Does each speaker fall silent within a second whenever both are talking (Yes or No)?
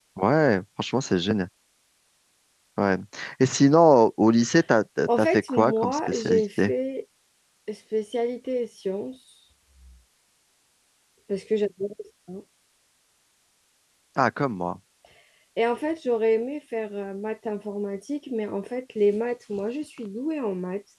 No